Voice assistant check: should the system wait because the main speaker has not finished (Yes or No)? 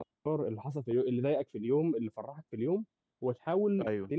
Yes